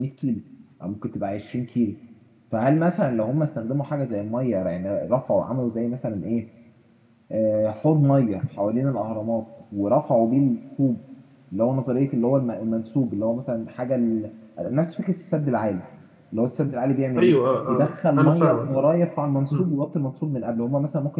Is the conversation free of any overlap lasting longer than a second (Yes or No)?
No